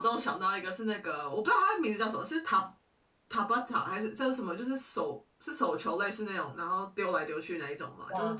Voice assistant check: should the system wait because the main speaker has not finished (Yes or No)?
Yes